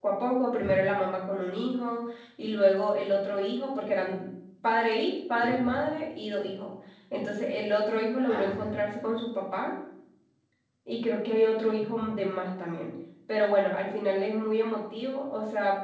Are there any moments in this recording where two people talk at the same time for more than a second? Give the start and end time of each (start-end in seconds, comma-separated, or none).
none